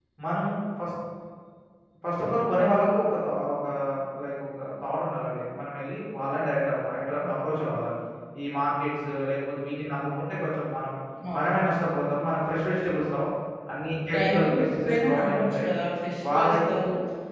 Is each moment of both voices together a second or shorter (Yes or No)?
No